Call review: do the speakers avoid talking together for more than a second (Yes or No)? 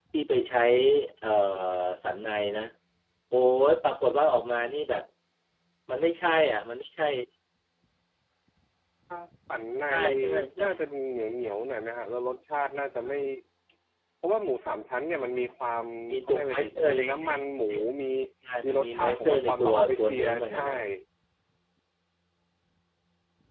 No